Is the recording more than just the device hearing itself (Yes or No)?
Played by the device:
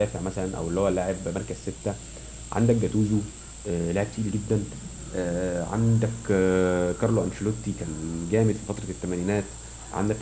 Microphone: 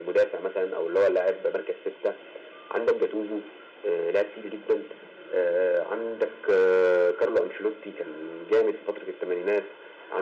No